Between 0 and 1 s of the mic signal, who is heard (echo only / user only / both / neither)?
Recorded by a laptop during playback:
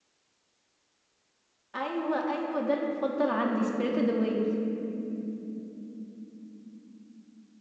neither